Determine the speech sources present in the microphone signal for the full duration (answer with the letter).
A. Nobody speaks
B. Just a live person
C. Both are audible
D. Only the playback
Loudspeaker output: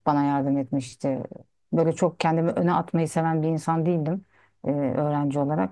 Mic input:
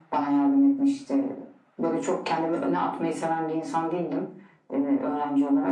D